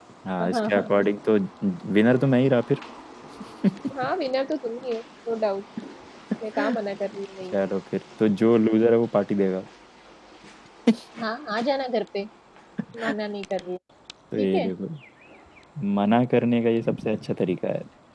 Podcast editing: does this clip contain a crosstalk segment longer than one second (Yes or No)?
No